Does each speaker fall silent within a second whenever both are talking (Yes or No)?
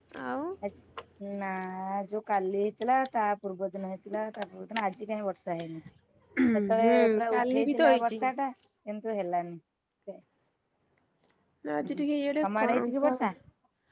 No